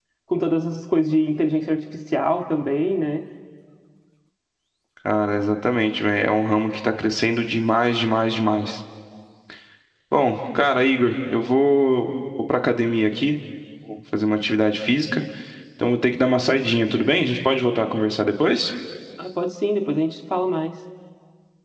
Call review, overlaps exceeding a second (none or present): none